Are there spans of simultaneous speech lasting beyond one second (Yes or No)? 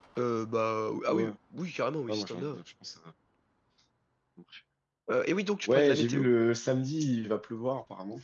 No